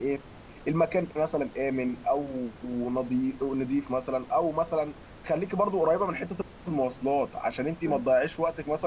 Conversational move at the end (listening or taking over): listening